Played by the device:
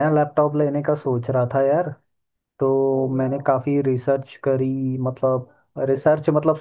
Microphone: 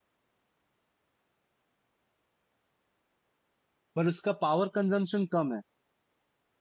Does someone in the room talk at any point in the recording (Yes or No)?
Yes